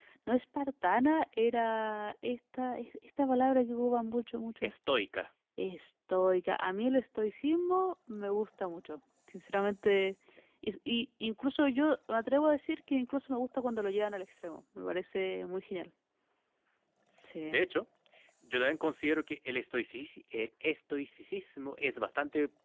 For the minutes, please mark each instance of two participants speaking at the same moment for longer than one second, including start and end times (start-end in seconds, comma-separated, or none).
none